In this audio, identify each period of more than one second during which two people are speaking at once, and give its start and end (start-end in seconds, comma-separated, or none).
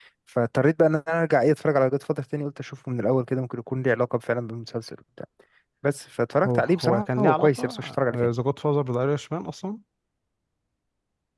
6.4-8.2